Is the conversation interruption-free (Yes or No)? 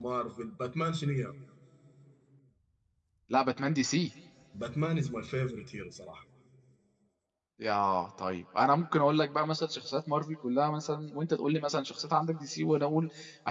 Yes